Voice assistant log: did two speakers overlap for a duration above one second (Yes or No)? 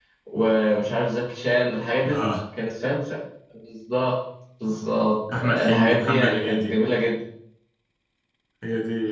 Yes